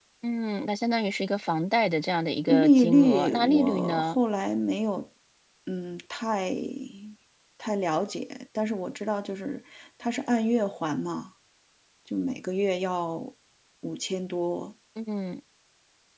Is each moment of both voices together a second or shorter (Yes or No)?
No